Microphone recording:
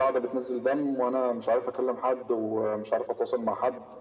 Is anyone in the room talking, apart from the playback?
No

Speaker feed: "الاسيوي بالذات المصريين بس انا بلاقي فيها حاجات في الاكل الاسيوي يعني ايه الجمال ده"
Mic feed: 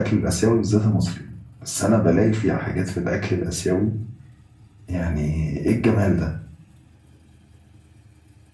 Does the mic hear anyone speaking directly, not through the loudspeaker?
No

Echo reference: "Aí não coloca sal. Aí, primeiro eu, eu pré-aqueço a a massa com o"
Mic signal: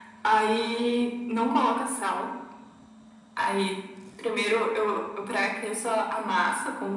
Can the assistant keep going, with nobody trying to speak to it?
Yes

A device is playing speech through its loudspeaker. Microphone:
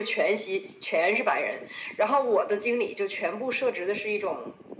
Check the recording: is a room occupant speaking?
No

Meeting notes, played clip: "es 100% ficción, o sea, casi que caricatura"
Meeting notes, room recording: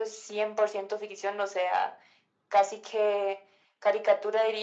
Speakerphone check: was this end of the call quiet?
Yes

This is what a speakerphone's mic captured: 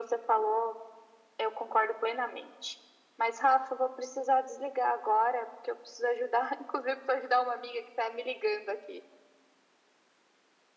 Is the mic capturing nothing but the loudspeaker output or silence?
Yes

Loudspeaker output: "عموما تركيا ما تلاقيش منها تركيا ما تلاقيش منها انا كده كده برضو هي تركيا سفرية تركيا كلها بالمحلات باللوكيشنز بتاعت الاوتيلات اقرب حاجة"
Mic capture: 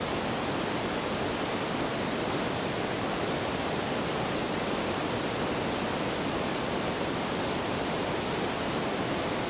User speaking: No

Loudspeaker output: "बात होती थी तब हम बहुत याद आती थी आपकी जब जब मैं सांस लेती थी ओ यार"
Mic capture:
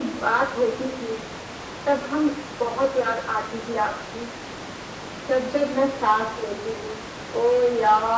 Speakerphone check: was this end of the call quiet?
Yes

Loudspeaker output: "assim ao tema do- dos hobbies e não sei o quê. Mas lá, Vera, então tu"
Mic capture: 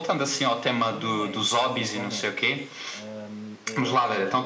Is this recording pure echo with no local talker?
No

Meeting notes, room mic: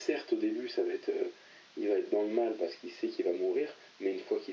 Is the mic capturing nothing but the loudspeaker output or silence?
Yes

